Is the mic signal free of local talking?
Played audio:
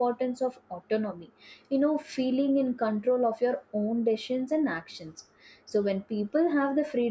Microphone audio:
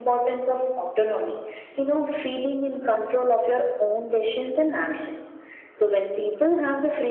Yes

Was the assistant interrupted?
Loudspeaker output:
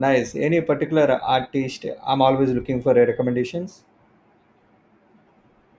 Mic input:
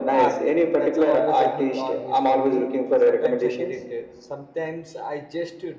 Yes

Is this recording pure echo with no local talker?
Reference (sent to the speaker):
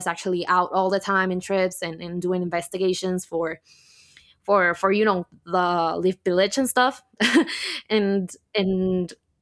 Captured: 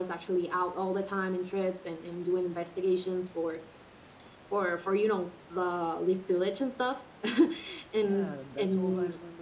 No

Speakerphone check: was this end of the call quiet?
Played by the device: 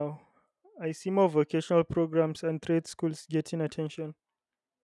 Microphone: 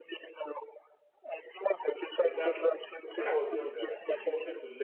No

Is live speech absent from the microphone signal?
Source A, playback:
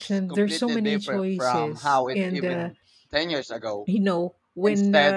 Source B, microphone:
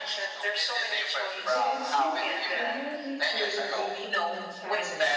No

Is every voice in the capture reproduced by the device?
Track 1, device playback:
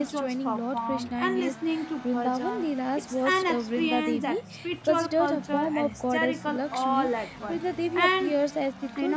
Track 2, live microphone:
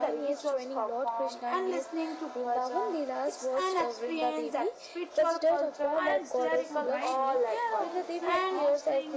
No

